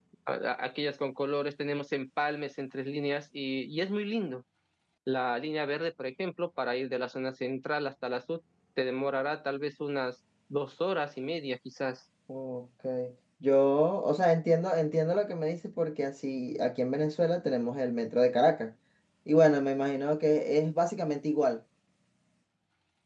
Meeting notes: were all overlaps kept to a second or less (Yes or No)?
Yes